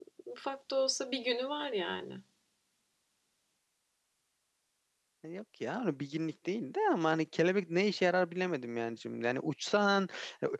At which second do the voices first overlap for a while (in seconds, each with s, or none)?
none